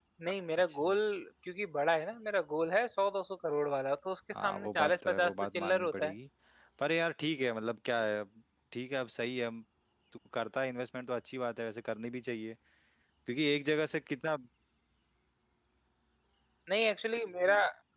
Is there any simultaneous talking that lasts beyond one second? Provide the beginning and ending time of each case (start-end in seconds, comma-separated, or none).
4.4-6.1